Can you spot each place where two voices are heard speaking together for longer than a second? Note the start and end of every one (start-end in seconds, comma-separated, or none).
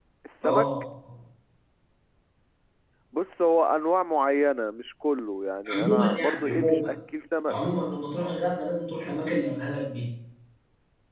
5.7-6.9